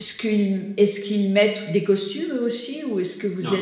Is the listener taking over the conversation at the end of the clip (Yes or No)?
No